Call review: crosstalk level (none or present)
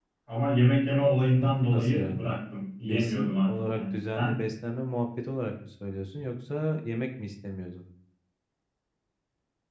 present